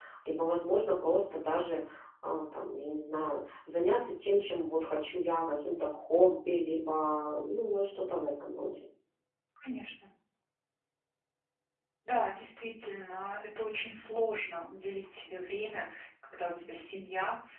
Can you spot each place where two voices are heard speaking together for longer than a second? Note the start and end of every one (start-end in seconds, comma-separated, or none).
none